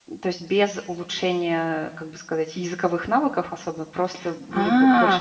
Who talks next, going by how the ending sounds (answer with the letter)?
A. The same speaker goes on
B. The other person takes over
B